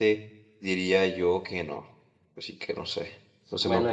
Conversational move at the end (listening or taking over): taking over